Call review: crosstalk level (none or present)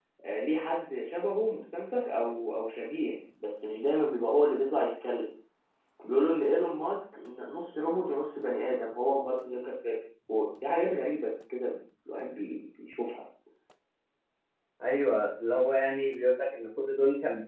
none